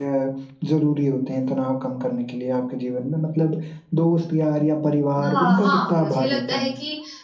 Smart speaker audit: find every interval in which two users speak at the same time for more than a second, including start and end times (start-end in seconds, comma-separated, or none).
5.2-6.7